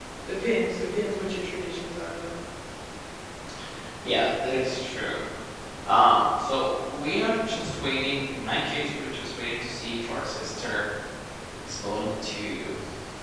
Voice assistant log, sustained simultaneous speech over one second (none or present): none